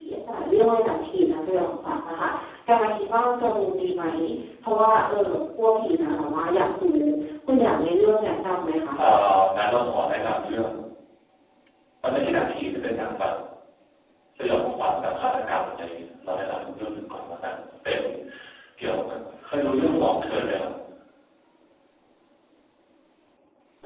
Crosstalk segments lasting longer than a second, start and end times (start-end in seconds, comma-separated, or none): none